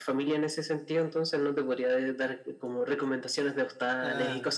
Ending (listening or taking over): taking over